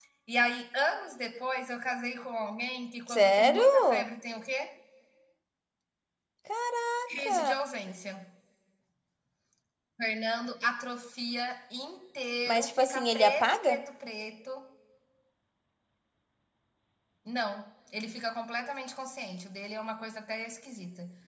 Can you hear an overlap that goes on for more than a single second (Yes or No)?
Yes